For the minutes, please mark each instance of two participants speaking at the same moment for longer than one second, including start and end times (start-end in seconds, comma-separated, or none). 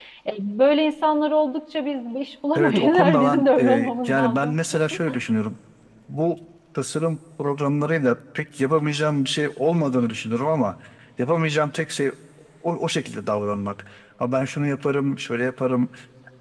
2.5-4.5